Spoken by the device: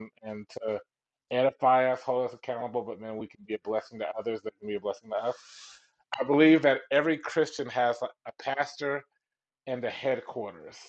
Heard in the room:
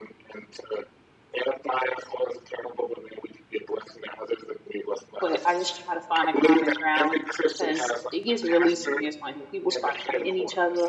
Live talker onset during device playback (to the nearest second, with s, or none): 5 s